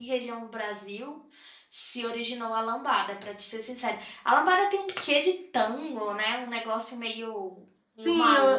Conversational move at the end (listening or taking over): taking over